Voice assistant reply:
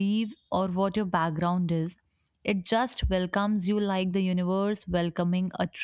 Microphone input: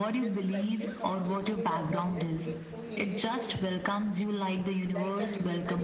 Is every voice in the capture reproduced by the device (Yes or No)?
No